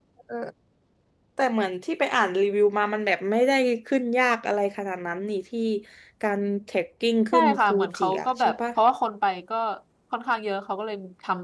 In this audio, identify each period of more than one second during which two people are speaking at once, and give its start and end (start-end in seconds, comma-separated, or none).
7.3-8.6